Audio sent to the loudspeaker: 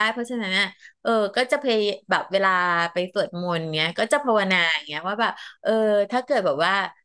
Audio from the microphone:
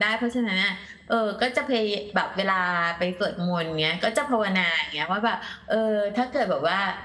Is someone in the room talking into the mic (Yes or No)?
No